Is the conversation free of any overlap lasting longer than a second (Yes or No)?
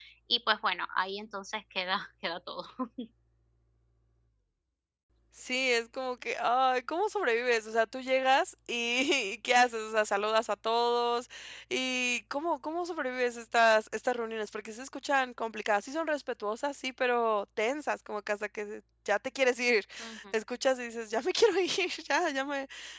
Yes